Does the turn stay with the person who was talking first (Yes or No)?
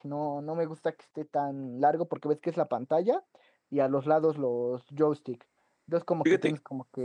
Yes